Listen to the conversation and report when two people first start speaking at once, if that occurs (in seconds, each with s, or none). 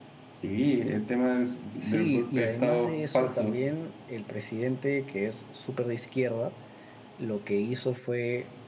1.8 s